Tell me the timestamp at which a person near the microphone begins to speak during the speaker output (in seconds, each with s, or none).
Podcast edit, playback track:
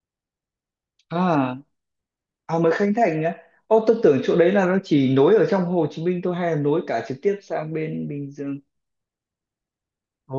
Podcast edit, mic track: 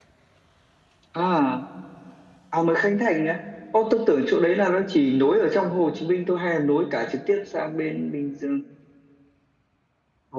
none